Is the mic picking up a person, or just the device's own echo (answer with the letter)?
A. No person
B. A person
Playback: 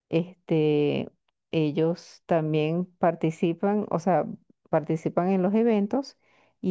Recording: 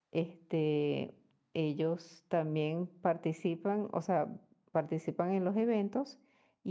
A